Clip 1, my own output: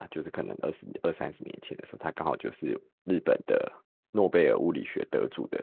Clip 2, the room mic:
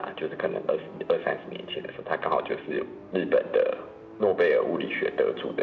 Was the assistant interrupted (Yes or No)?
No